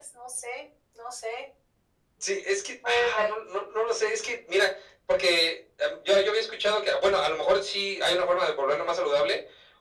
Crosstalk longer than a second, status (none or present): none